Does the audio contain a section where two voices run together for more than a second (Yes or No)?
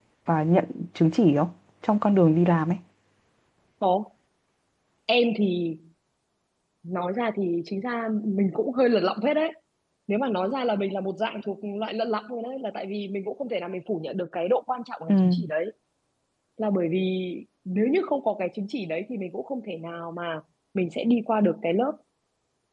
No